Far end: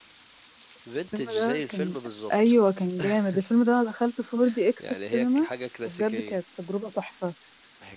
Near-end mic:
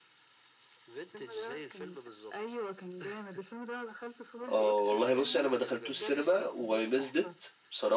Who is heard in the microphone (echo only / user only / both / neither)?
both